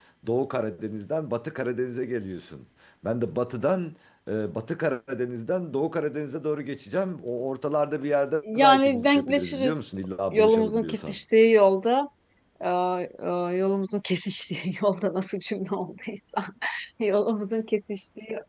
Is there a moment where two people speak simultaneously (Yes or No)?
Yes